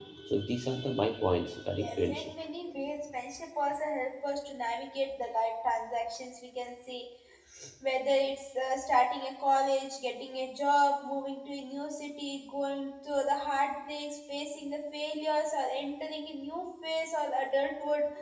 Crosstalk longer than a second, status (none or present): none